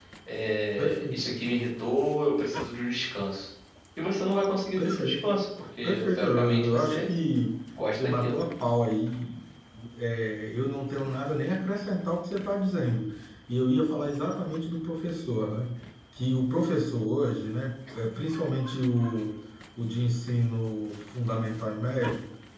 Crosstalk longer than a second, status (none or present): present